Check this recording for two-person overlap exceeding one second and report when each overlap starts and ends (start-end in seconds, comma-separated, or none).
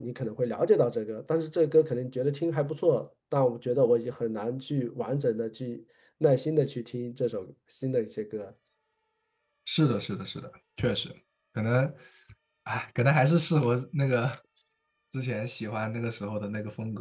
none